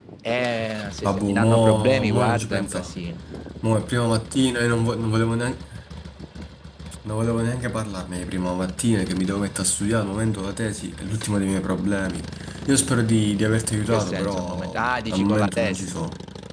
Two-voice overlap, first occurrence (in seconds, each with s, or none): 1.0 s